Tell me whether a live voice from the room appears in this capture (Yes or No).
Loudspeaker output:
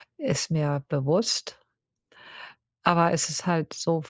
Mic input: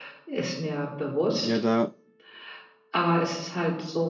Yes